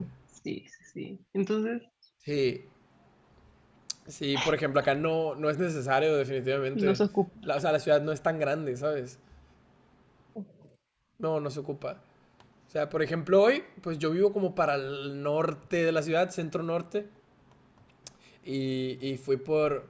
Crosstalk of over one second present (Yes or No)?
No